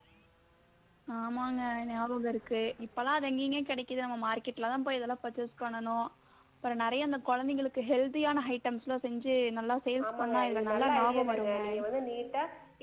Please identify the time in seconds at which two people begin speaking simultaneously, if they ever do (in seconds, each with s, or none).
10.0 s